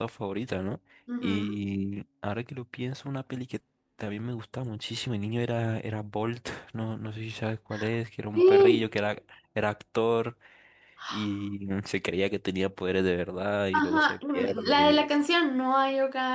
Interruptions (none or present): present